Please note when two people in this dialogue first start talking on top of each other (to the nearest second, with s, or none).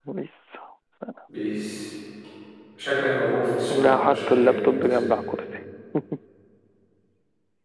4 s